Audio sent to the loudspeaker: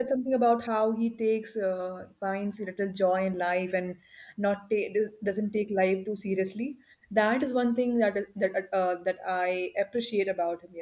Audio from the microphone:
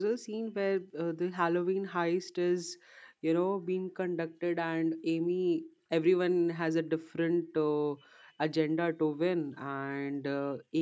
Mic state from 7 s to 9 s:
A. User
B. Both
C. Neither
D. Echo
A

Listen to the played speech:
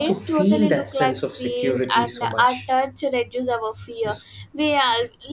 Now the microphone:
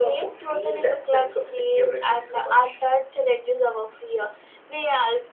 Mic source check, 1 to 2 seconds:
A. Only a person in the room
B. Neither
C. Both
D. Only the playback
D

